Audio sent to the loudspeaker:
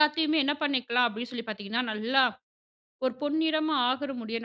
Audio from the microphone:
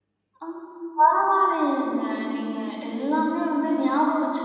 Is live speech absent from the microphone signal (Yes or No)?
No